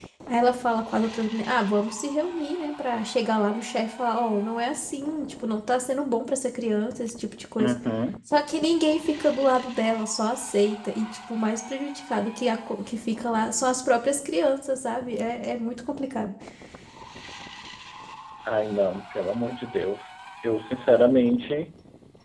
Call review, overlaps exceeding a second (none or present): none